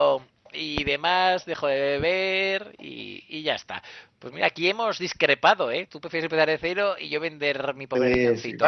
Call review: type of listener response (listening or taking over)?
taking over